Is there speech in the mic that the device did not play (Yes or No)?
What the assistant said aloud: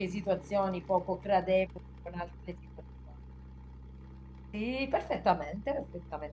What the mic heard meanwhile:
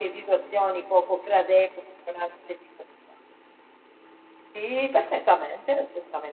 No